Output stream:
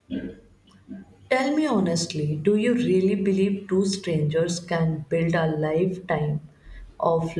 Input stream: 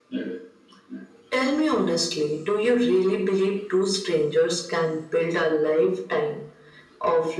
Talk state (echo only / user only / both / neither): echo only